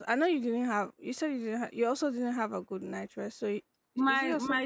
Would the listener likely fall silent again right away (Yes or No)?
No